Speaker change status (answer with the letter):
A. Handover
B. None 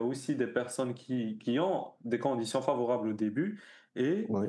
B